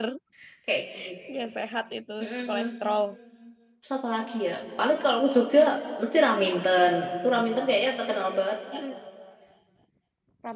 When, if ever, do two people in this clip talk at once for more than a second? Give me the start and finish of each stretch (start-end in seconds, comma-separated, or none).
none